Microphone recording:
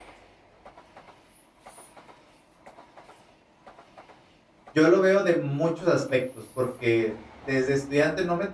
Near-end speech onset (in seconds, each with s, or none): 4.7 s